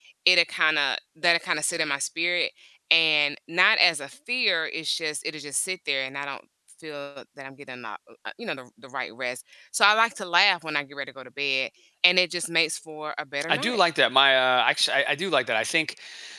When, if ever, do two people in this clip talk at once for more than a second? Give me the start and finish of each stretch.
none

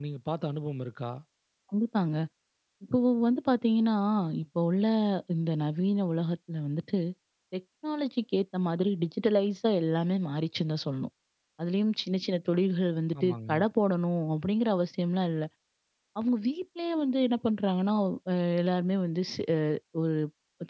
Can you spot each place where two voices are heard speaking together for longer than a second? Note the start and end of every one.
none

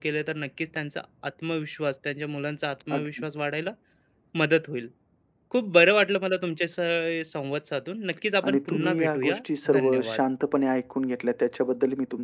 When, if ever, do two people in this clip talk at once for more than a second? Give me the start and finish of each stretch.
8.4-10.2

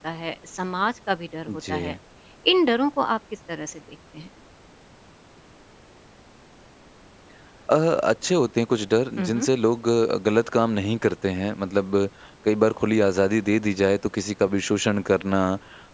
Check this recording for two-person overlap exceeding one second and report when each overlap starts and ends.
none

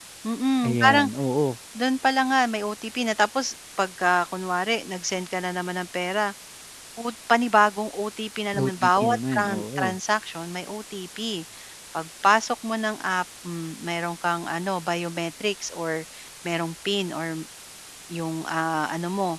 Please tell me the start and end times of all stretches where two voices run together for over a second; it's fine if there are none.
8.6-9.8

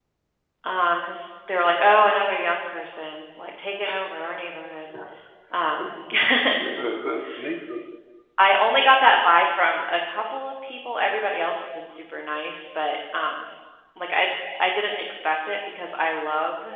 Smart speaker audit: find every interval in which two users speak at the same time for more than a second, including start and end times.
none

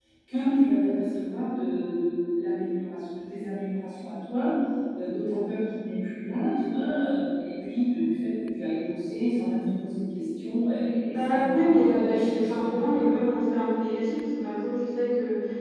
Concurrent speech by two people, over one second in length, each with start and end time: 11.1-13.2

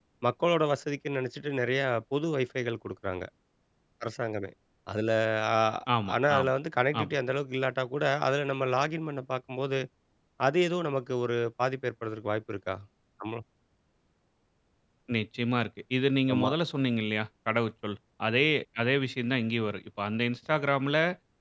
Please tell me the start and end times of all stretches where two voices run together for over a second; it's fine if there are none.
none

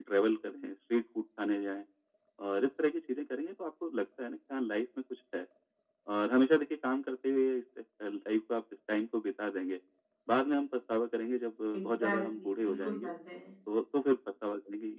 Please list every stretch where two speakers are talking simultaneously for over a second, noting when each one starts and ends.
11.7-13.1

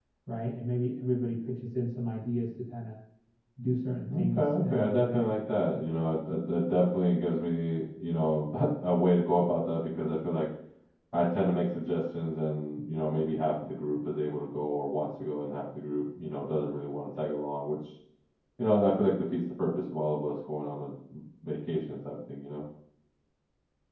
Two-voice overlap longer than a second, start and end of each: 4.1-5.3

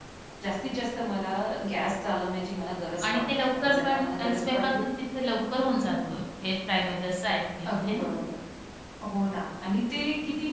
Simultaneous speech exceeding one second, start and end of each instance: 3.1-4.8

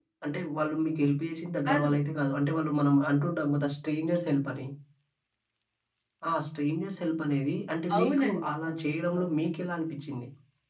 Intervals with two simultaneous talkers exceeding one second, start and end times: 8.0-9.3

